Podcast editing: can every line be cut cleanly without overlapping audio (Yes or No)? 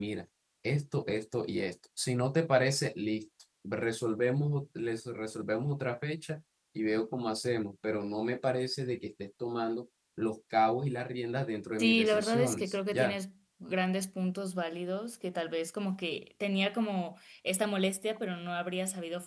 No